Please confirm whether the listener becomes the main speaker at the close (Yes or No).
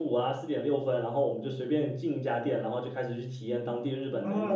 Yes